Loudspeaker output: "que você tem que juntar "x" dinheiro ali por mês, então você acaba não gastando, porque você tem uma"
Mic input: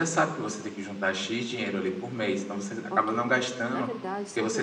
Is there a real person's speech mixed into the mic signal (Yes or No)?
Yes